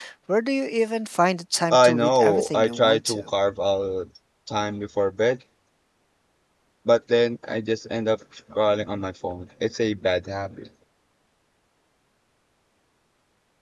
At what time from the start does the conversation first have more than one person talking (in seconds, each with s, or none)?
1.7 s